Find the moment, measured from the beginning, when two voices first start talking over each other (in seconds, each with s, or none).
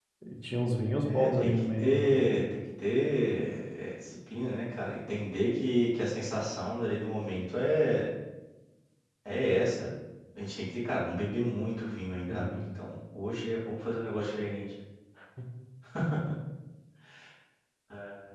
1.0 s